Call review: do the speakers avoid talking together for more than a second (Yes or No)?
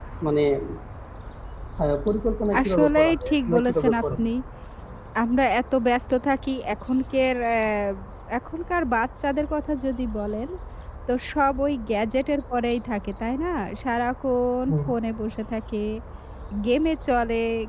No